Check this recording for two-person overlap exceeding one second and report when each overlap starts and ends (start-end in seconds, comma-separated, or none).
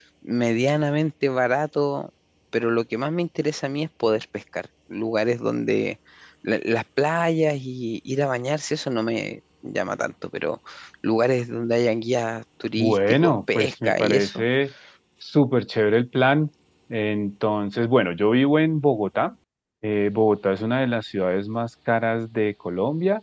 12.8-14.4